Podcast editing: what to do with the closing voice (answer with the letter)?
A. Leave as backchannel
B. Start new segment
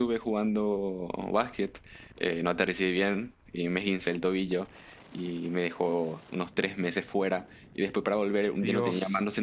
A